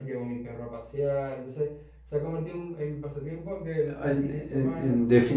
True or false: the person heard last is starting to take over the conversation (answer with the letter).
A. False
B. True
B